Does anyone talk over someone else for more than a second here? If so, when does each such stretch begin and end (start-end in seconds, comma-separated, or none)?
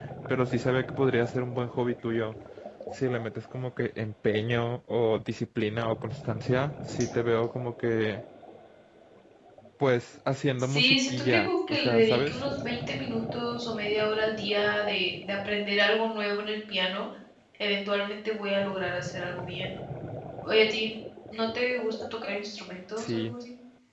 10.6-12.4